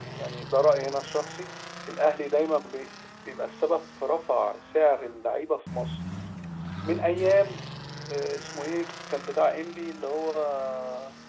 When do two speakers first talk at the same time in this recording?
none

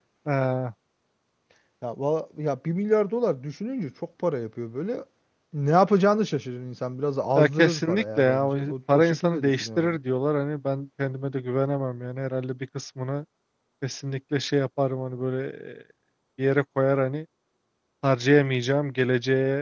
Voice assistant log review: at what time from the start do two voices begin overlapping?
7.4 s

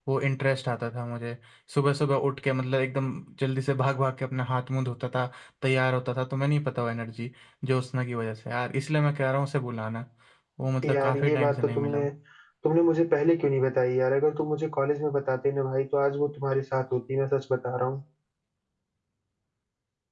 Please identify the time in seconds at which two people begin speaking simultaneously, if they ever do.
10.8 s

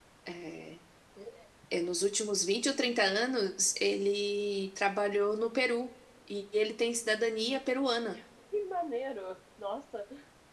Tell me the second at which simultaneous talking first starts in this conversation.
none

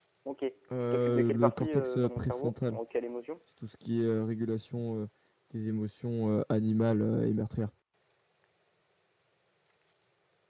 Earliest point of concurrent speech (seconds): 0.9 s

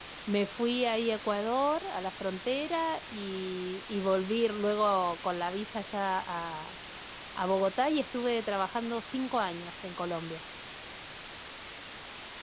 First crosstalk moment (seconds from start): none

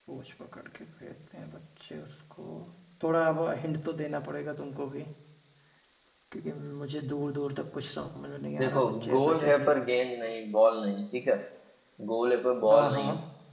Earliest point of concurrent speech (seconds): 8.6 s

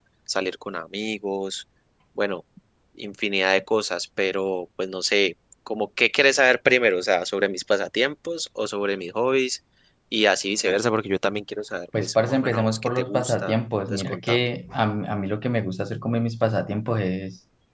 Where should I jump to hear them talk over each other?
11.9 s

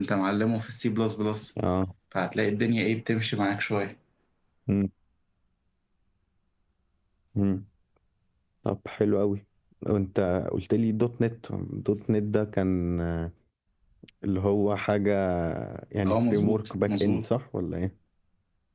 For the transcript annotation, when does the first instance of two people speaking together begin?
16.0 s

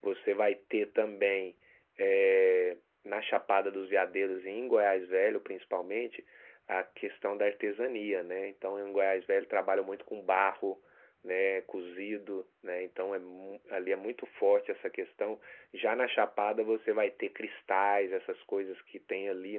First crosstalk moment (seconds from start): none

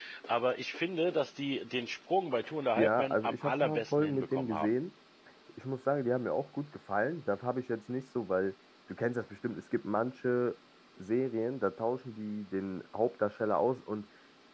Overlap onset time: 2.8 s

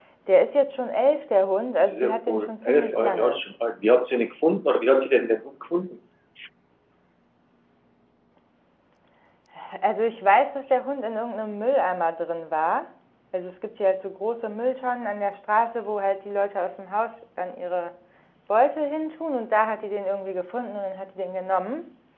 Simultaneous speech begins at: 1.8 s

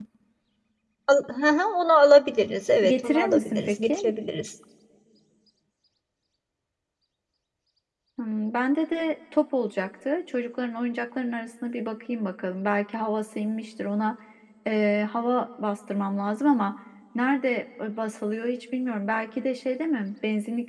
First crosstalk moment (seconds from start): 2.8 s

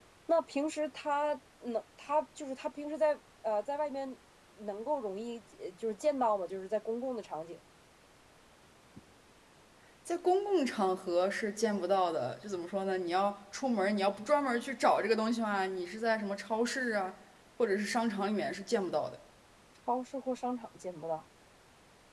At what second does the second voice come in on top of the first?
none

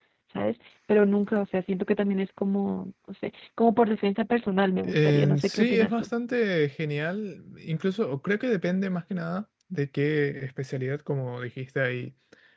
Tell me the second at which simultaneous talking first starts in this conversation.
4.8 s

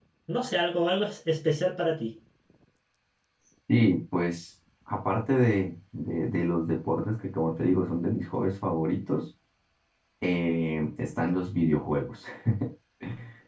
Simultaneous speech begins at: none

